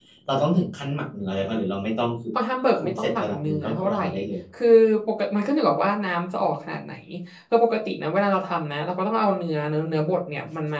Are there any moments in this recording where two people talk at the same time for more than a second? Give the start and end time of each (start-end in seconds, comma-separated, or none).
2.8-4.0